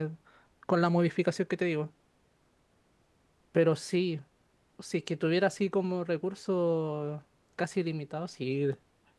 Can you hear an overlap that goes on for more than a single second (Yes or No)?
No